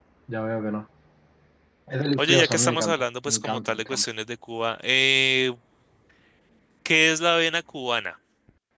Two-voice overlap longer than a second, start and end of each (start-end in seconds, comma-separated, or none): 2.2-4.0